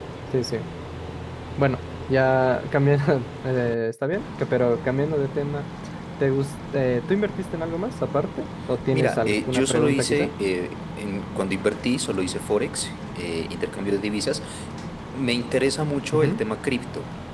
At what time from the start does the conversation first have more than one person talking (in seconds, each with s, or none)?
8.9 s